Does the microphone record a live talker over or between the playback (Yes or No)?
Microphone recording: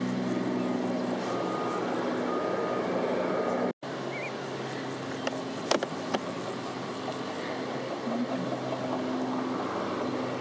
No